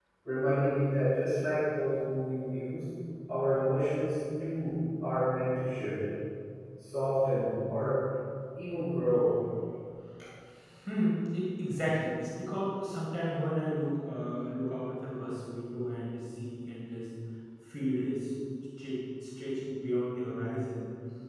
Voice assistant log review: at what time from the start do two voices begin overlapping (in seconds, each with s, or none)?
none